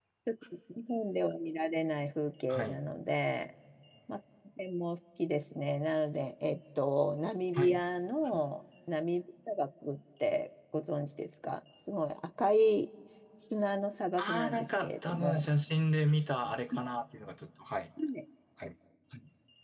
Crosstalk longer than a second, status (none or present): present